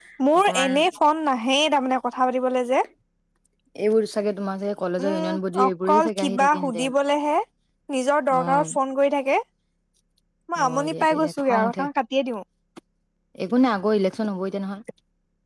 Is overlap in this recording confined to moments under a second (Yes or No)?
No